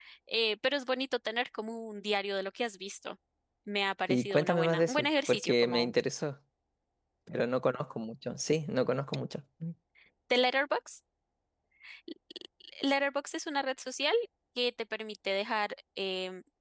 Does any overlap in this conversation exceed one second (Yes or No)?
Yes